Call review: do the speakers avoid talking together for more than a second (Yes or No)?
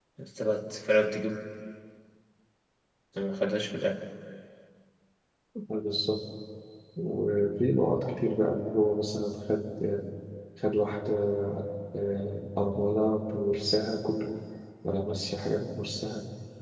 Yes